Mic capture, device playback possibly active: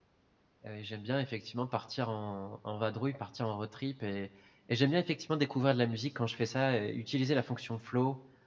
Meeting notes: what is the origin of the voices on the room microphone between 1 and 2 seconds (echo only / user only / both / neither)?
user only